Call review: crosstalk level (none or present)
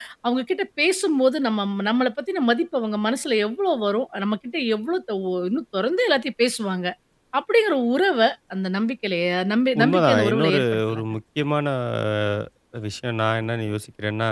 present